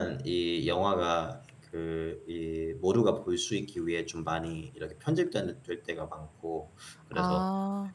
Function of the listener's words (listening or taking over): listening